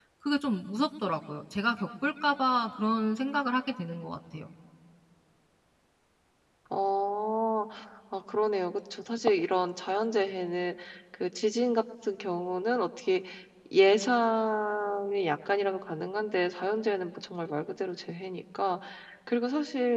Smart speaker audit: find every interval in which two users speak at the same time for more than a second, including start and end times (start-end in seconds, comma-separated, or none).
none